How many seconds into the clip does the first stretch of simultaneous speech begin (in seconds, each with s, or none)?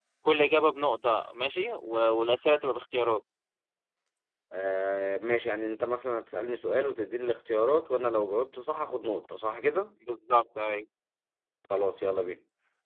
none